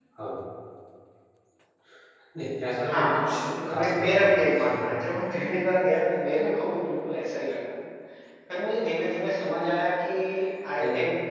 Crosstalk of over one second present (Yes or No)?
Yes